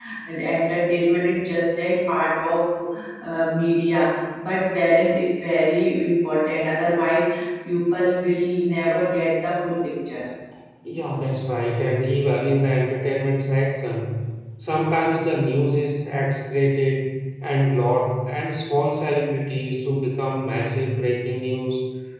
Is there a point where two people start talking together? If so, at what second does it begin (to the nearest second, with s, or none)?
none